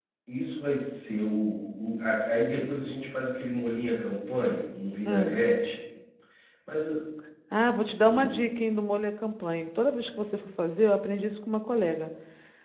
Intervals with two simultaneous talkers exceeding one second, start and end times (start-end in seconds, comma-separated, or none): none